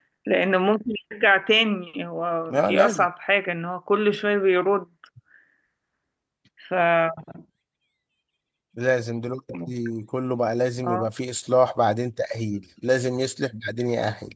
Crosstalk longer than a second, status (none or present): none